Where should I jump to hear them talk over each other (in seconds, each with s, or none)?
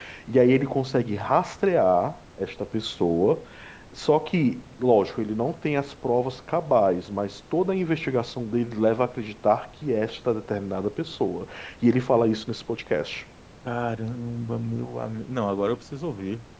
none